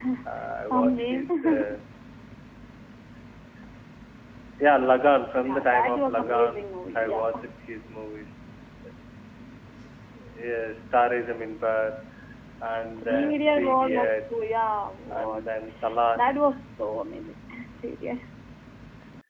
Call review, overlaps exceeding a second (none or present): present